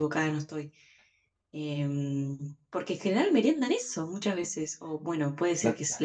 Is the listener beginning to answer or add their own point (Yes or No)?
No